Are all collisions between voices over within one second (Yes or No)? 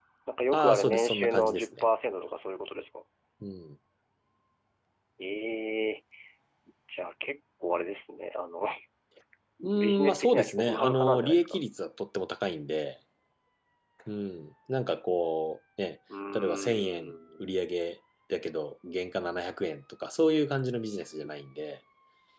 No